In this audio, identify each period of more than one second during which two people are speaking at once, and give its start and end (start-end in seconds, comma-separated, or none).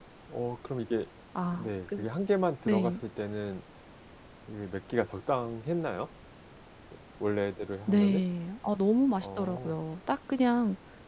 none